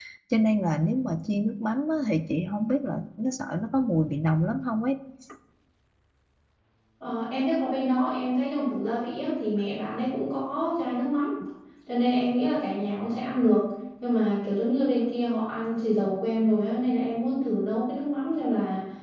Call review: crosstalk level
none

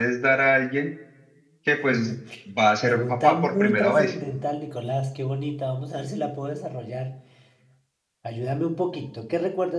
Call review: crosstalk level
present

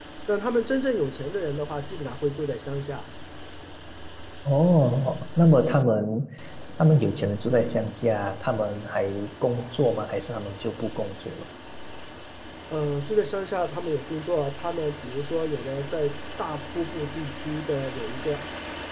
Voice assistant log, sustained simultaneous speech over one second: none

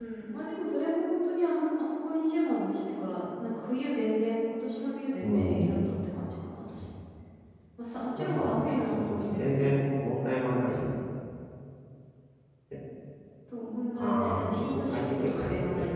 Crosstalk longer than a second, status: present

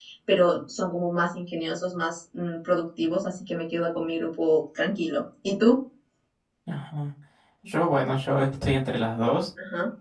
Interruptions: none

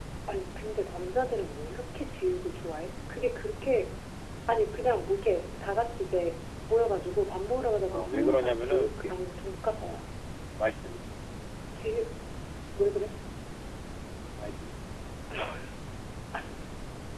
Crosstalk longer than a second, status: present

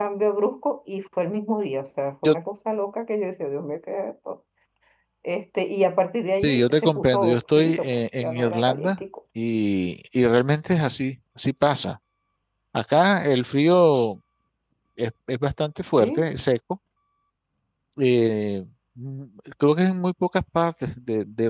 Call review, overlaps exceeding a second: present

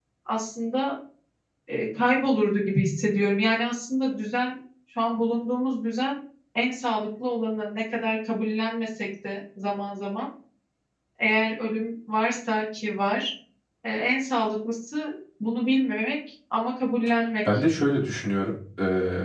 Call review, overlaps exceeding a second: none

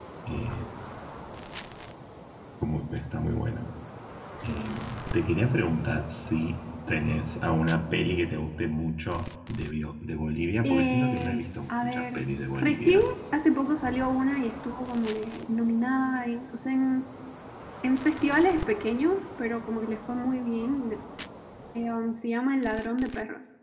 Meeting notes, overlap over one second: present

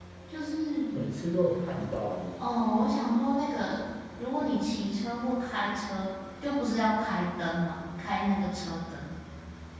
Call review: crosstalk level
none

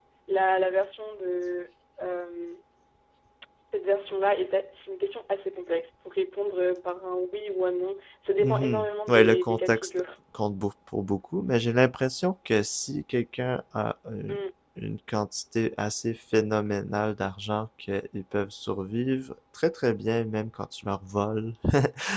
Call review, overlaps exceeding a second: present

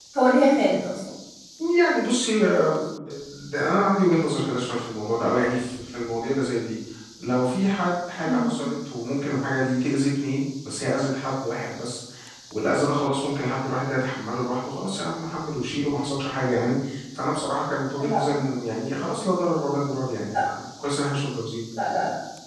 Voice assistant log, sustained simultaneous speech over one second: none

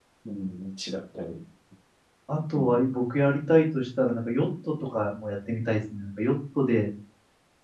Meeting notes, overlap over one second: none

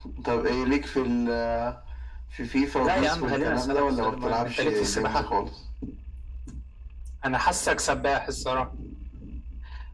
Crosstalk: present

